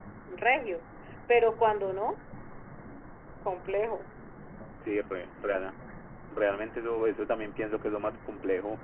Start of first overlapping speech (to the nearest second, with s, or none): none